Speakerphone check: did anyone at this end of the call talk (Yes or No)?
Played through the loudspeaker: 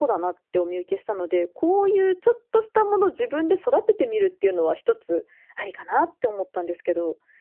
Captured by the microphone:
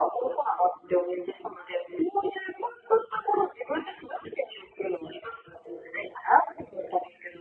No